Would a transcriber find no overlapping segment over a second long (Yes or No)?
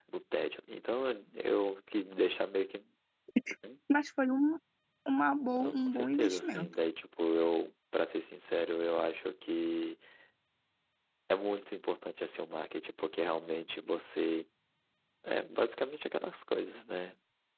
No